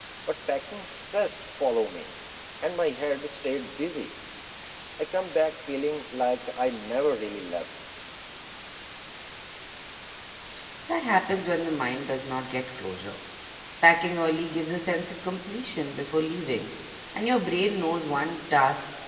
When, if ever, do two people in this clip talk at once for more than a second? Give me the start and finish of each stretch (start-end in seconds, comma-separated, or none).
none